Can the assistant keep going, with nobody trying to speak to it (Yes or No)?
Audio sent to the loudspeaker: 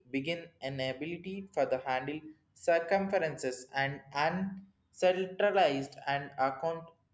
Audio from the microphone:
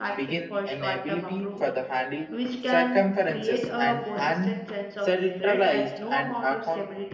No